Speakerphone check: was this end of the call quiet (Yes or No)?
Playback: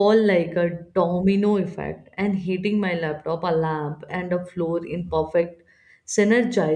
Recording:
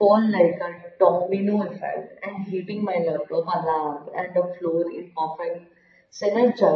Yes